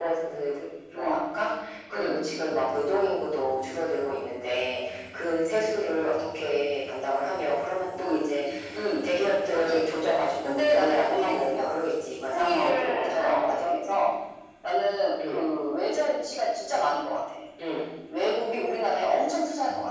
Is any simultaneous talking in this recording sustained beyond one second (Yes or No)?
Yes